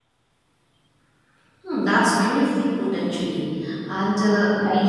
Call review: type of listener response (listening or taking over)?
listening